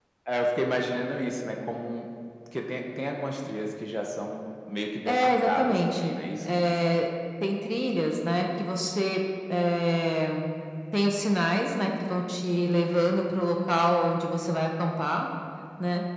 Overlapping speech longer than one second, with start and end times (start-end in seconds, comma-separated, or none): 5.1-6.6